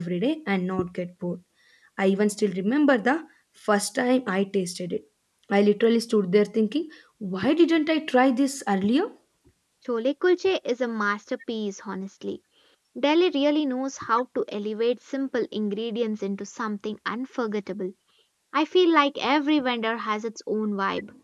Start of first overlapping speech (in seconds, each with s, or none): none